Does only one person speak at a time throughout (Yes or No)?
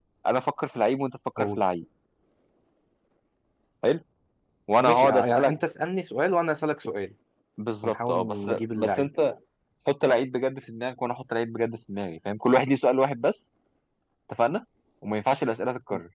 No